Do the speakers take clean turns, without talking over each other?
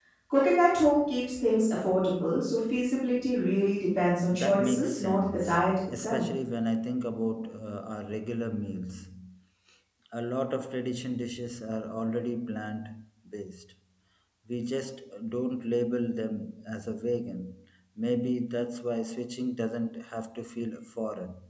No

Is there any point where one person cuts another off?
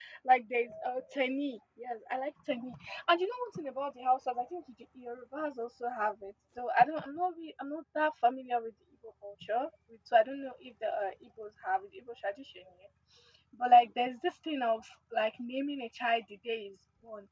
No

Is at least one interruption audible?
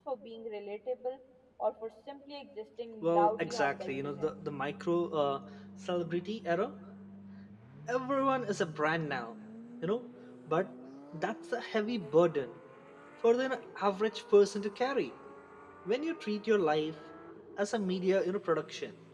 Yes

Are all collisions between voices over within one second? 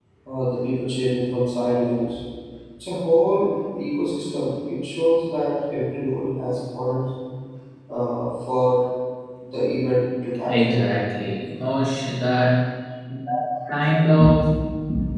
Yes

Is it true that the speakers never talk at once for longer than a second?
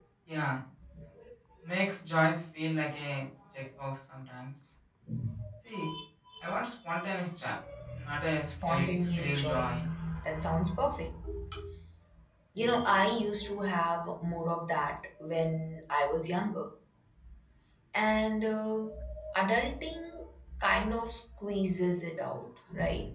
No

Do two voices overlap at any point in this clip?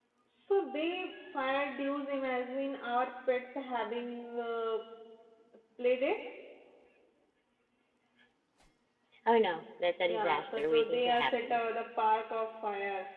Yes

